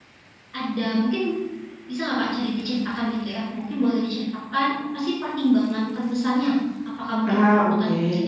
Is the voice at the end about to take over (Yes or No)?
No